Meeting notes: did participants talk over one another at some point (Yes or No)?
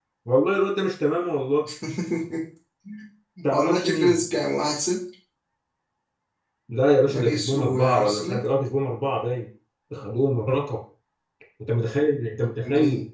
Yes